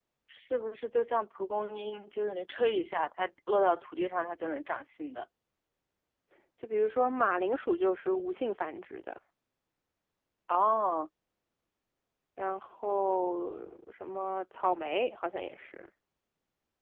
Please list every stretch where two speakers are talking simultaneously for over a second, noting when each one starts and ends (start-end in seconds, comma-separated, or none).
none